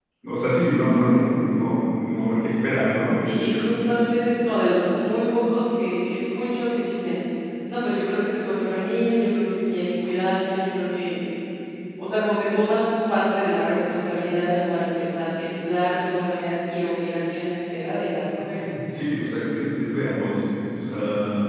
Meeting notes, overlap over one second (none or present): none